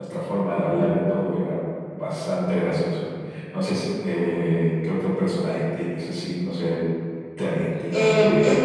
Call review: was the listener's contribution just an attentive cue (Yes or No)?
No